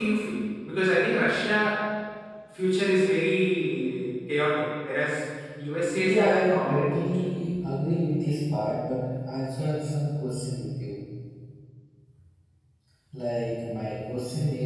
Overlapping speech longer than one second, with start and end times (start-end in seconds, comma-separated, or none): 6.0-7.3